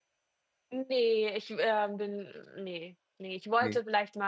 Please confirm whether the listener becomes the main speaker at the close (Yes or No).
No